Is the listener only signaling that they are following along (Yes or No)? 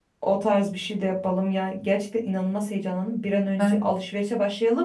Yes